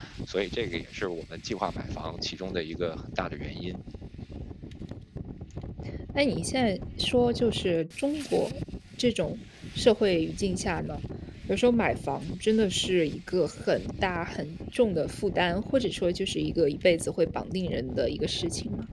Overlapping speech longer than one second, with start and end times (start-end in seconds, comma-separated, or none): none